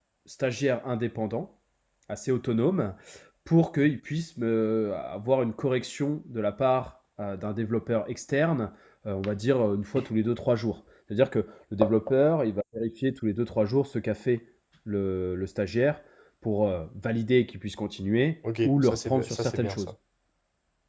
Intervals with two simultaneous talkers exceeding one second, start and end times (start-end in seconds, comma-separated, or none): 18.6-19.9